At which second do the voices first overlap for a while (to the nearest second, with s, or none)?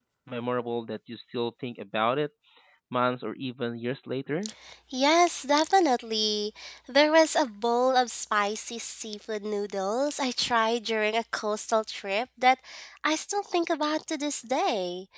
none